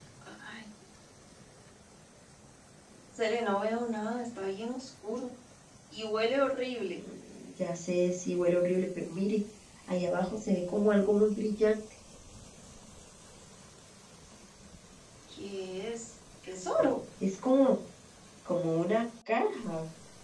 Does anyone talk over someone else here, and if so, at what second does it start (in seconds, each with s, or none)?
none